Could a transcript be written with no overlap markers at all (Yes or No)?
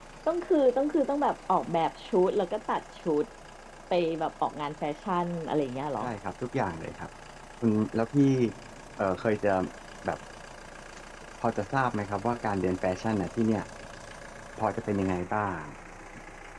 Yes